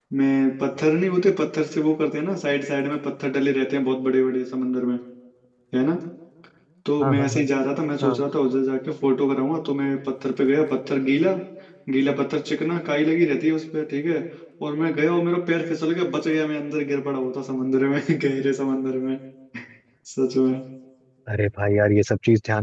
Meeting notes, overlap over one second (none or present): none